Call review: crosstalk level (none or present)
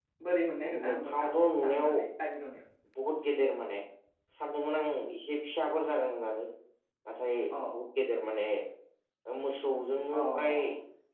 present